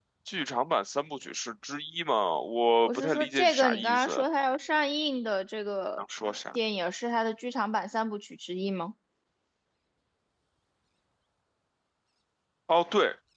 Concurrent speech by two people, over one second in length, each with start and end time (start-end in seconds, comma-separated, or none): 2.9-4.2